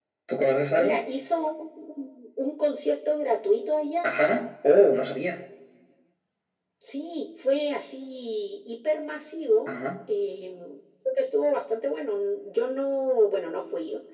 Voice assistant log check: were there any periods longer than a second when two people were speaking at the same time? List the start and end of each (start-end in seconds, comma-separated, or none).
none